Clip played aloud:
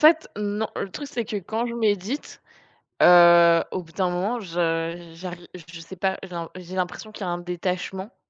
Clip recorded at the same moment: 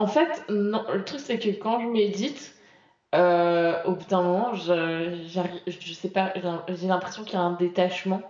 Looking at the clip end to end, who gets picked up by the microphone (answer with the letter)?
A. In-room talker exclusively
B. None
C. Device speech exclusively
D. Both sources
C